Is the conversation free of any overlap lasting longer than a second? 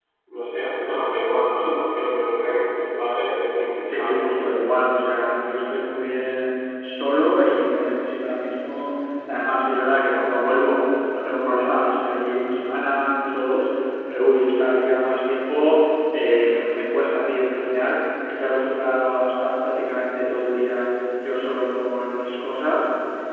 Yes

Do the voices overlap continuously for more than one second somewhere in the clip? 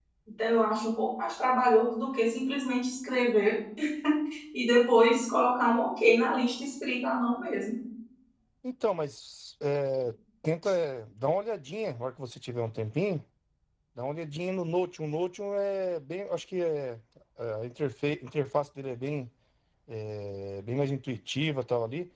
No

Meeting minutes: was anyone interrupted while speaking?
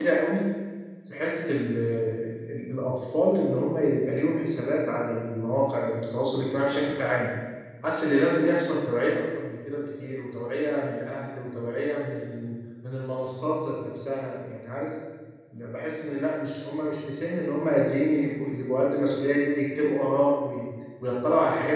No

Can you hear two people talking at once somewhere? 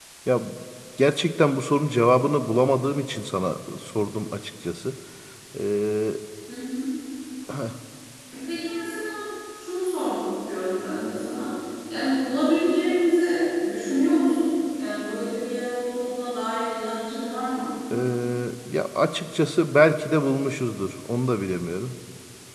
No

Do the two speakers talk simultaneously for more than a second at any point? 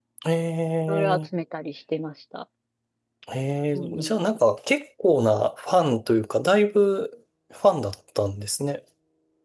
No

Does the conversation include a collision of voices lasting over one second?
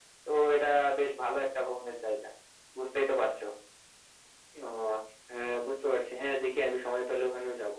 No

